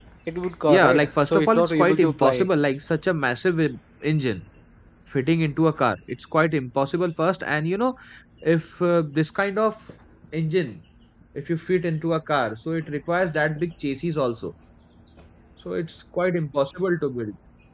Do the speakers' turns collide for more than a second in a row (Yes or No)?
Yes